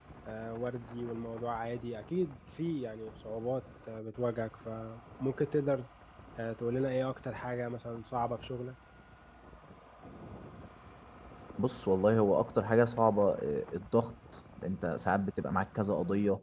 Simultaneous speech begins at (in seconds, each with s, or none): none